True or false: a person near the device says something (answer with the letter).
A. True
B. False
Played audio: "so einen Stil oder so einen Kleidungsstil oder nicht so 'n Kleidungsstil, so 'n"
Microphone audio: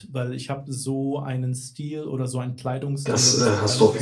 A